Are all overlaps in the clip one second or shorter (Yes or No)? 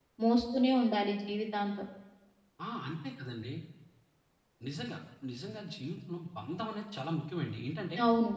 Yes